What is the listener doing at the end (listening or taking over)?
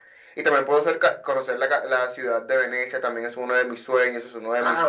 taking over